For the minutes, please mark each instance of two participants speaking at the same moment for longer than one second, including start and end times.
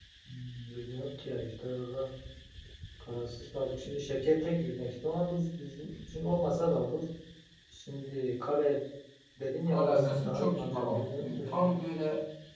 9.7-11.7

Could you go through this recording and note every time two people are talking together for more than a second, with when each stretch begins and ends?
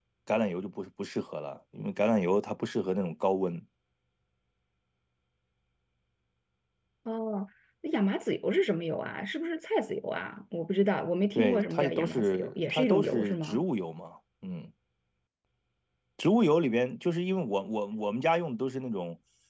11.3-13.6

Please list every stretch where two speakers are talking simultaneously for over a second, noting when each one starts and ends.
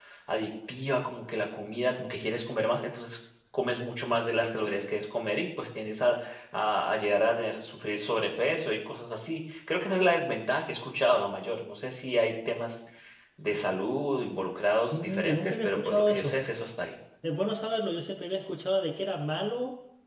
14.9-16.3

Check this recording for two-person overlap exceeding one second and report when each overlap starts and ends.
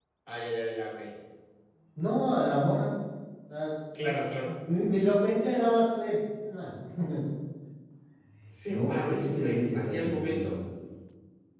8.7-10.6

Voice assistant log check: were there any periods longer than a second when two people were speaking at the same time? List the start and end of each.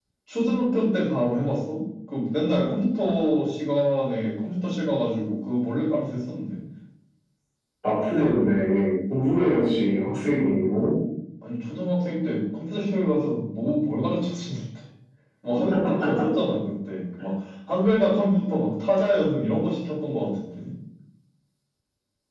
none

